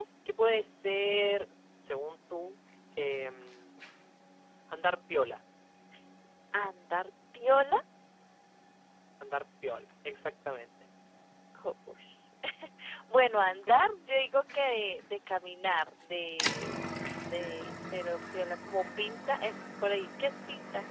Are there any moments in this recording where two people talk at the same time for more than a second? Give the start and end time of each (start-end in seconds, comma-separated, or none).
none